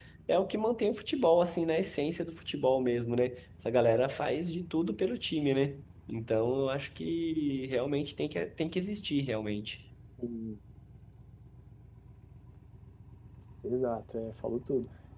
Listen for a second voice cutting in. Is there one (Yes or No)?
No